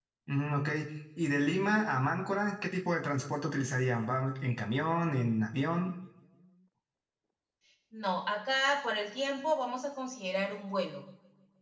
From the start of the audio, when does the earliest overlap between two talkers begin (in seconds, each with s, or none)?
none